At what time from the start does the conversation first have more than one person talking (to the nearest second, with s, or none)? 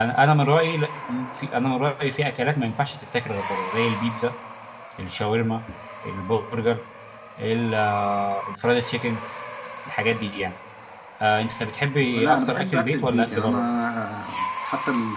12 s